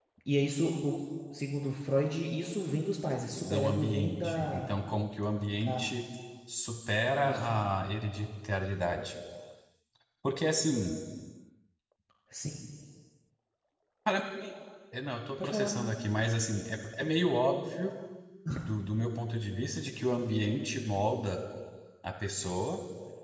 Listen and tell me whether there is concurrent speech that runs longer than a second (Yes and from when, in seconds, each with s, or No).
Yes, from 3.4 s